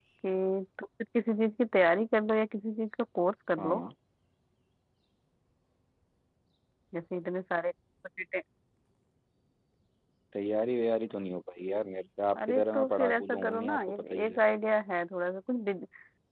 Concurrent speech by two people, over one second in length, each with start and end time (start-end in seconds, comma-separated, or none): 12.4-14.4